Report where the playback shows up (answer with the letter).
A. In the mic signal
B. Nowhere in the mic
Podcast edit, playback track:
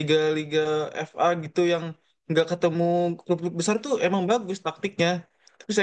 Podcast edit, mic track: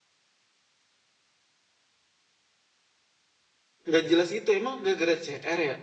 B